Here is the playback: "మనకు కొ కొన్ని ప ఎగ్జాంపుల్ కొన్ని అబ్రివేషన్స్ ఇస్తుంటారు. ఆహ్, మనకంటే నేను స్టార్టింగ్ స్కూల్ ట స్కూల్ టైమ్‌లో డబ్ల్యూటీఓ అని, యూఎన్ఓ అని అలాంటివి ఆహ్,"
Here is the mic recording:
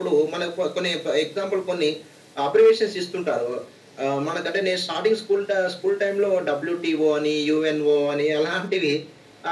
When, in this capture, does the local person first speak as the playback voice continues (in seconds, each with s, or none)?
none